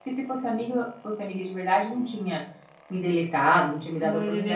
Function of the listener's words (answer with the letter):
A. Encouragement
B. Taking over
B